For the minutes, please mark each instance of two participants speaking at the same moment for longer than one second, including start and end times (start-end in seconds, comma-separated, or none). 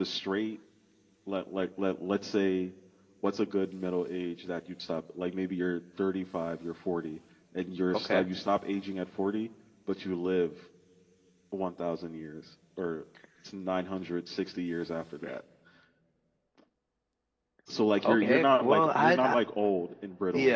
18.0-19.4